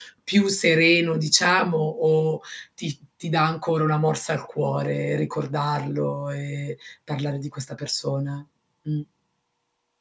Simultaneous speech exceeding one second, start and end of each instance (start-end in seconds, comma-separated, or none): none